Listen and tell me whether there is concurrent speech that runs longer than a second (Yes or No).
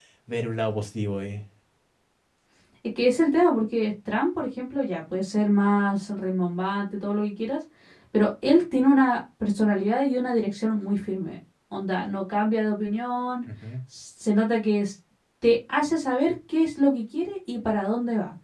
No